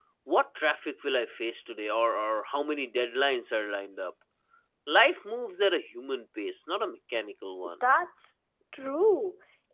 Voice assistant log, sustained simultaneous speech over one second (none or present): none